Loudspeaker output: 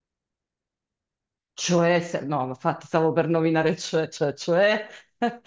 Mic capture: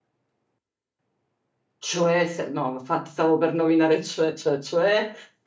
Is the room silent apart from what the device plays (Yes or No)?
Yes